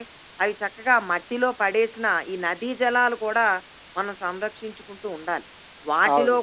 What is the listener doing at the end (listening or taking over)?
listening